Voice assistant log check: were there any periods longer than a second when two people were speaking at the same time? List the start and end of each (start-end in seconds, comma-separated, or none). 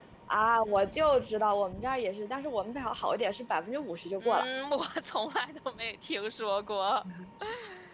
none